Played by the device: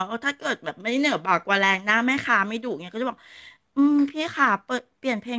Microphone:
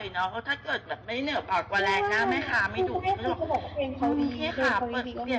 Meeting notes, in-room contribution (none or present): present